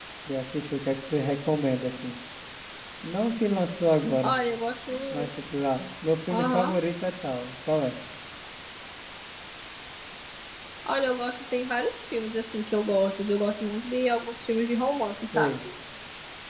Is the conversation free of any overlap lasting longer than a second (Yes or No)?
Yes